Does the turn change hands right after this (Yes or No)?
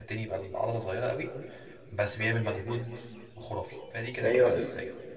Yes